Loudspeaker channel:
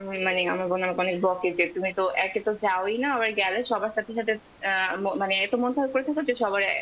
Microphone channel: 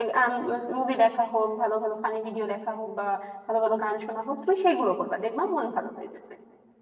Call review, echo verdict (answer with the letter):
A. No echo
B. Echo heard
A